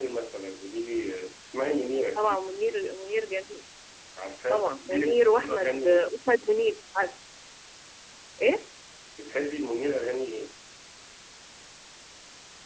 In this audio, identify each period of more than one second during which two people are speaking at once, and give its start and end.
4.5-6.1

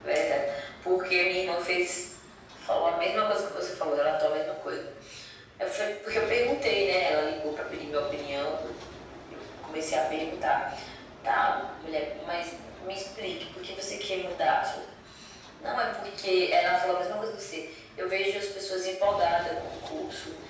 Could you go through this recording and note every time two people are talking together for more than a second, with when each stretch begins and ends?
none

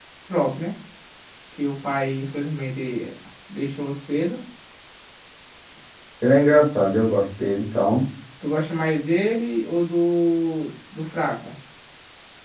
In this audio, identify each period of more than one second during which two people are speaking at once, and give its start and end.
none

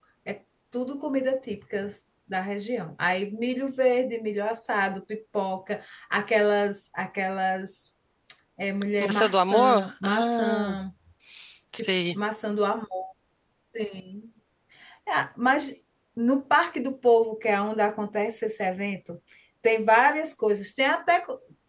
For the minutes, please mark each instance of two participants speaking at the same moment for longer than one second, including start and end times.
9.0-10.8

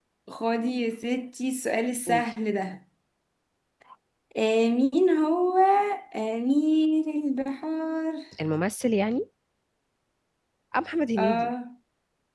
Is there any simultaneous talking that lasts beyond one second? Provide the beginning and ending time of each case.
none

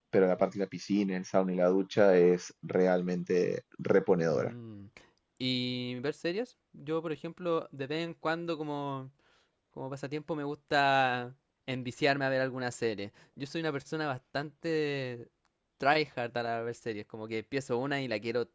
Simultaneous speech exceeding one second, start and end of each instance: none

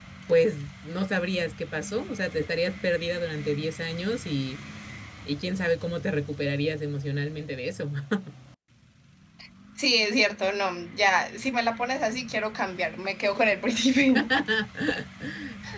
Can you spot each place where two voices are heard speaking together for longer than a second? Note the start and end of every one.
none

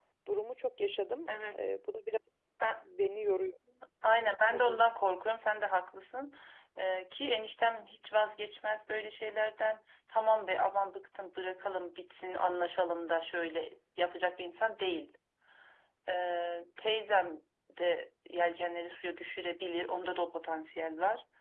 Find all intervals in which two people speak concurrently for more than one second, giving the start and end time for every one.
none

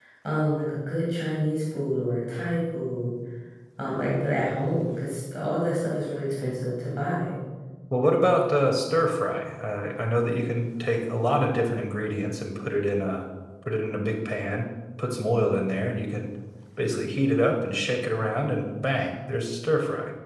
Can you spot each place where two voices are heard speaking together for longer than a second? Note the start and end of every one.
none

